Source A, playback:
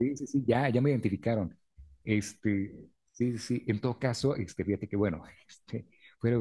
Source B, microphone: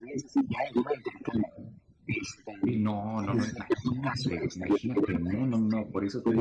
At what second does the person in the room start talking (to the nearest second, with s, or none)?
3 s